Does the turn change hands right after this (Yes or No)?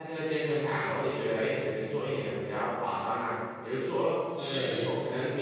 No